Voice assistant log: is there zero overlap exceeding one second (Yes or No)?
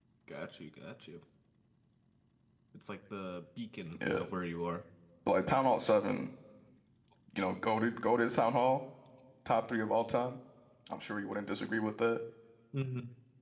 Yes